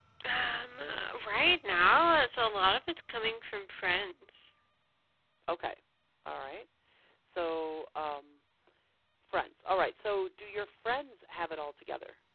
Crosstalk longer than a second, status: none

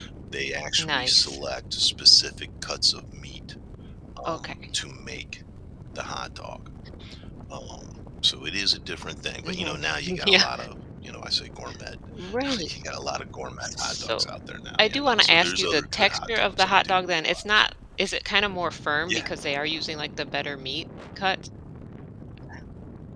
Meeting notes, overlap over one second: present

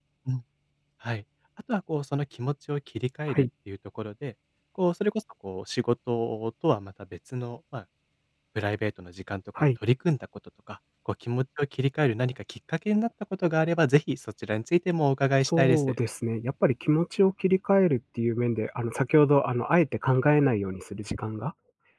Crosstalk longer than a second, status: none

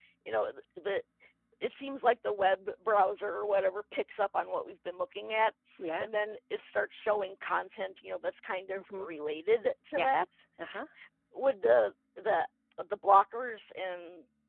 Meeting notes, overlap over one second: none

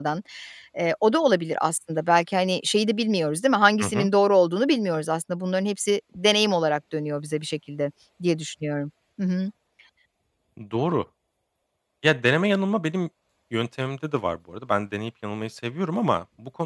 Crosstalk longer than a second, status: none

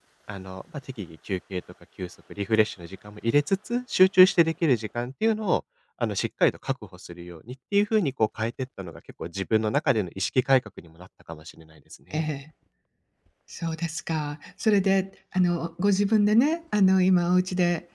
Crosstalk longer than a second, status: none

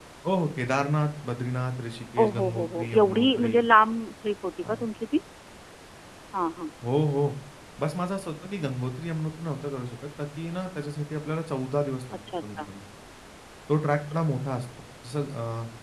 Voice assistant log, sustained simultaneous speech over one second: present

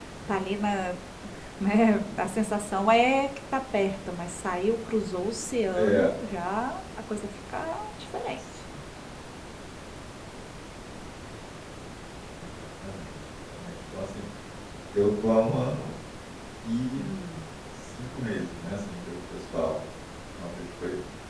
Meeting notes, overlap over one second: none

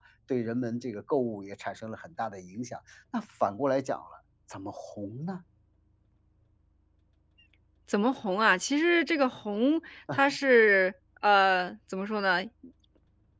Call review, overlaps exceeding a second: none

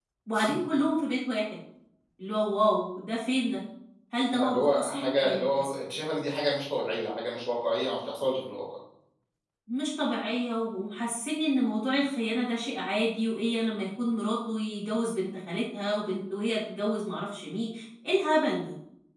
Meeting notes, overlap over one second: present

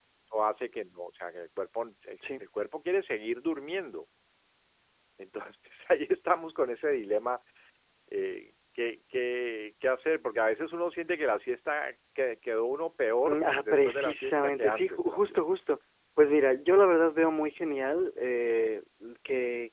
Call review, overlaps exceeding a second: present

